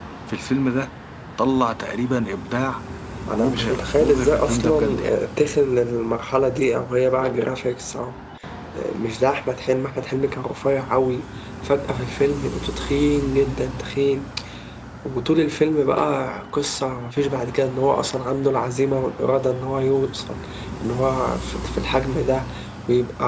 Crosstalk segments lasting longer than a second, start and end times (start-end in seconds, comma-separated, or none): 3.4-5.1